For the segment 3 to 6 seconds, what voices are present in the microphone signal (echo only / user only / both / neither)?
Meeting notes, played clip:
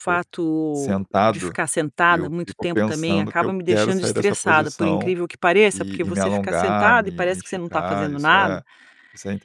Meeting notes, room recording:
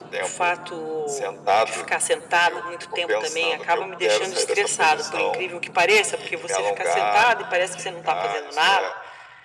echo only